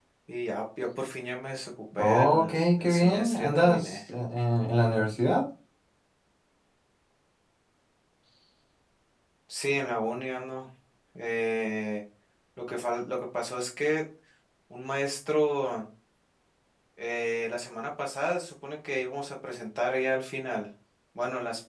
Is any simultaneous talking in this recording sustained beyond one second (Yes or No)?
Yes